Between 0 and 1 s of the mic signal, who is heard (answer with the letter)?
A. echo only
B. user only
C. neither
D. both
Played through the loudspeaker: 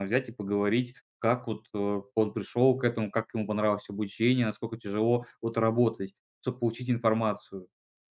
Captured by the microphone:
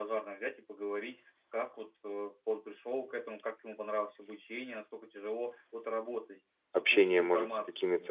A